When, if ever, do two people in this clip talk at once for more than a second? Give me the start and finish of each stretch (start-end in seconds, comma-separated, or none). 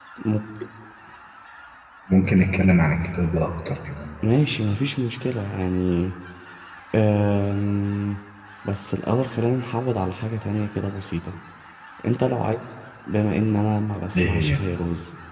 none